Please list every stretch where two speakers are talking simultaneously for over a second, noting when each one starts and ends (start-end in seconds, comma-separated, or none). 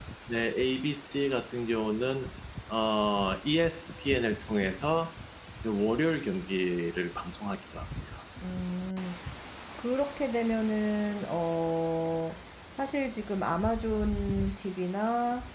none